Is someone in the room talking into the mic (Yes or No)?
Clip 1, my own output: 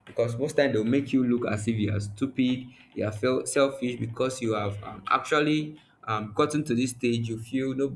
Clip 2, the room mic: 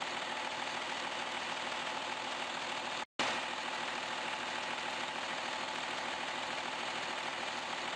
No